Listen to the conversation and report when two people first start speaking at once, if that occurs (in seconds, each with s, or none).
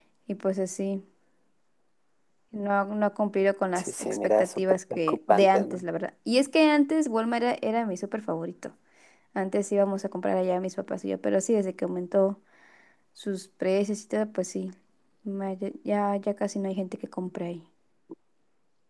3.8 s